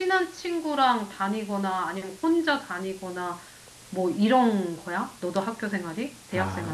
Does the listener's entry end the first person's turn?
Yes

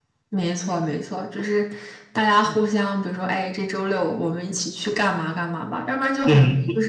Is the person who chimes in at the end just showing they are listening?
No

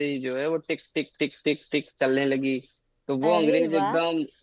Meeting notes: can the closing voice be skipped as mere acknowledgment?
Yes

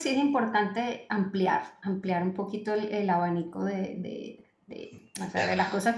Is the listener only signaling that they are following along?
Yes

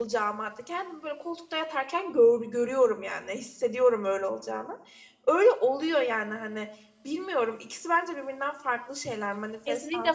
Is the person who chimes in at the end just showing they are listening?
No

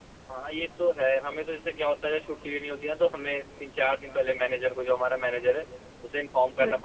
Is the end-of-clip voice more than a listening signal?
No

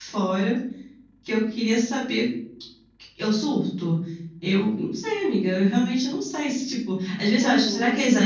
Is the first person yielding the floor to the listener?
No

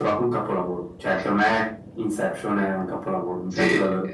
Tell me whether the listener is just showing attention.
No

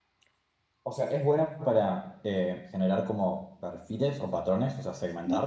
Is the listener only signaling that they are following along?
No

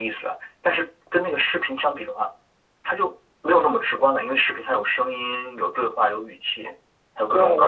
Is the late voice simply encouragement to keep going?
No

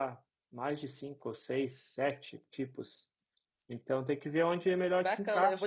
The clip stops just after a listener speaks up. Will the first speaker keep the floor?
No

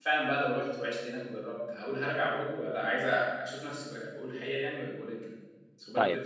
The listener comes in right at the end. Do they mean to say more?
Yes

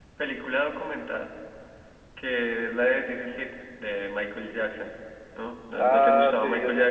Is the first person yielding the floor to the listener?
Yes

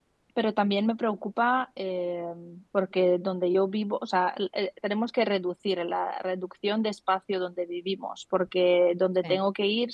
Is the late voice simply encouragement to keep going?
Yes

